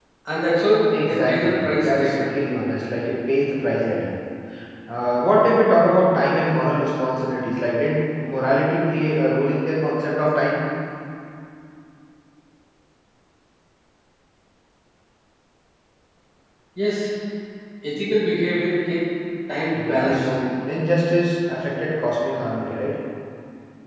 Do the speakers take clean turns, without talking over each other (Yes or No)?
No